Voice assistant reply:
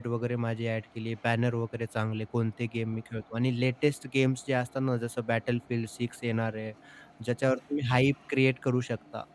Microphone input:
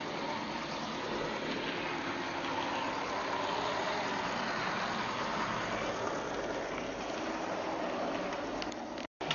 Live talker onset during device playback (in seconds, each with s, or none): none